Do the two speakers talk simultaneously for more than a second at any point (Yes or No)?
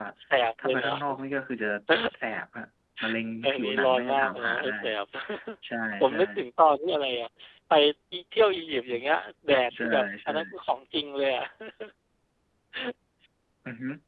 Yes